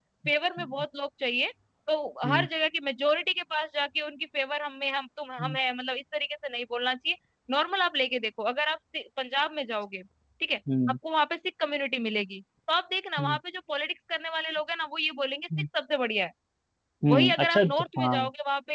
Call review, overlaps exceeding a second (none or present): present